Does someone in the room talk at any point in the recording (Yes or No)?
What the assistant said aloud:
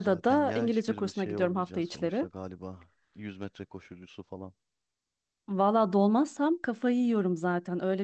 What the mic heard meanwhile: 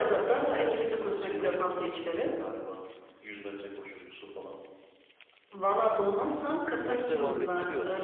Yes